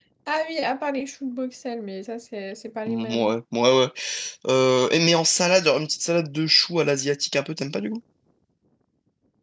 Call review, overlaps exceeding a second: none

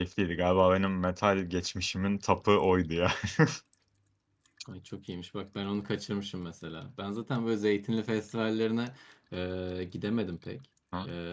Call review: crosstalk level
none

